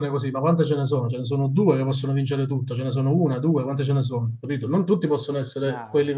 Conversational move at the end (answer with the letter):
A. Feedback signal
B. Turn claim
A